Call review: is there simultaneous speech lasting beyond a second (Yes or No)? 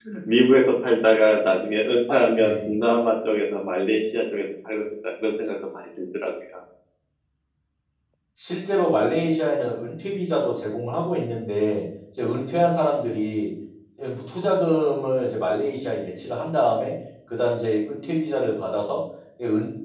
No